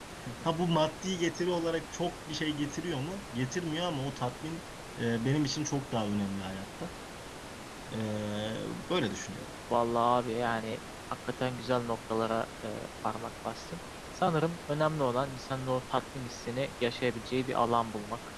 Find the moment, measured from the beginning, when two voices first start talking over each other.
none

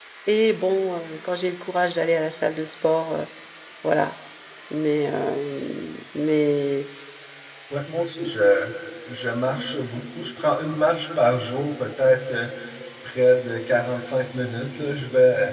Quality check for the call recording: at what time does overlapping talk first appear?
none

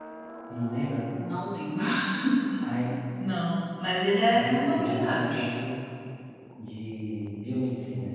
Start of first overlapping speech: 4.3 s

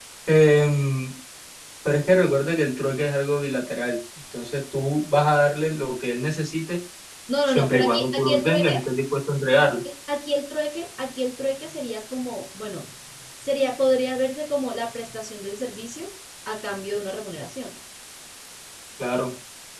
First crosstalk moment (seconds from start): 7.5 s

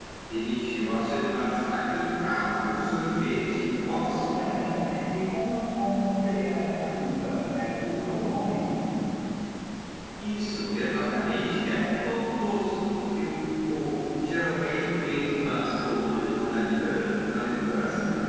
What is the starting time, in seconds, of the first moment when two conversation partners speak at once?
none

